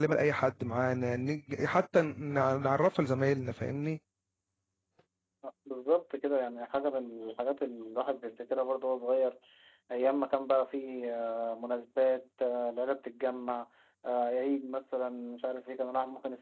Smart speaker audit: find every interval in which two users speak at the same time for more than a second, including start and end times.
none

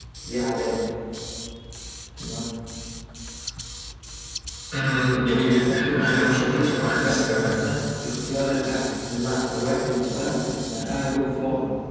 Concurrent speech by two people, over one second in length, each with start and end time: 5.6-7.5

